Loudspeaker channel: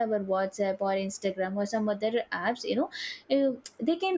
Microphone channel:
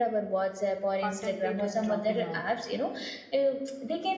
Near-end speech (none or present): present